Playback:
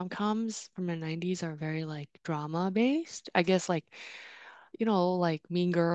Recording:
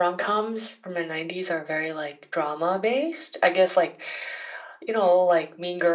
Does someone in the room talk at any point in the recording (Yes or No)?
No